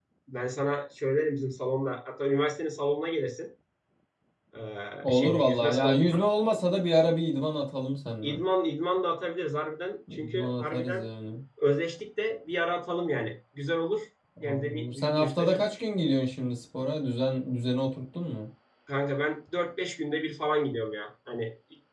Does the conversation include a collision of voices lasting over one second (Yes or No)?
Yes